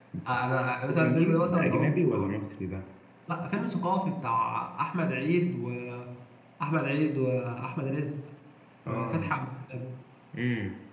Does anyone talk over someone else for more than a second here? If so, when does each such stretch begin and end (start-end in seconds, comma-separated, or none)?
0.9-2.3